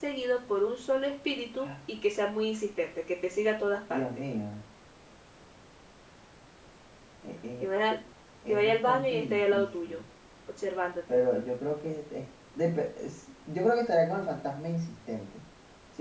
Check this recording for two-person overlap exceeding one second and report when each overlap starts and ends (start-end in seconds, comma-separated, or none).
8.5-10.0